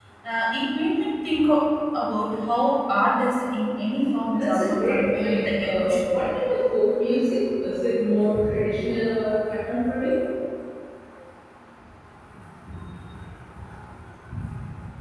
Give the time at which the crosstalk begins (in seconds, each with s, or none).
4.3 s